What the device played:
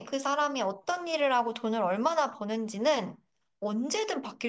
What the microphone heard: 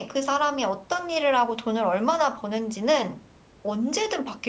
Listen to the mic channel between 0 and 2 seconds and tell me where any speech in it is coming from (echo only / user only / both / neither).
echo only